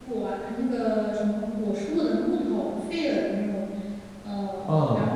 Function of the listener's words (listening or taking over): listening